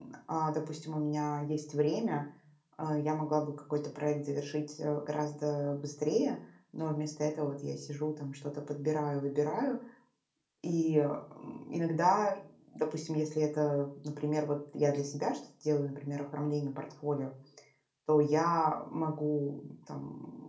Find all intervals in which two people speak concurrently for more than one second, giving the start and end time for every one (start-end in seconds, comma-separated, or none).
none